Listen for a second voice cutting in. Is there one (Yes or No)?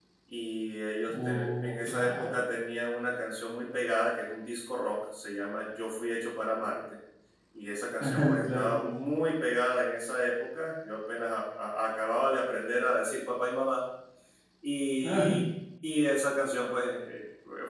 Yes